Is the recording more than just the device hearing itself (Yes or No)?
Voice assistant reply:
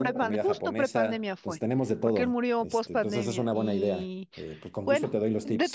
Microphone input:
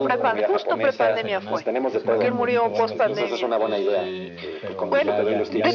Yes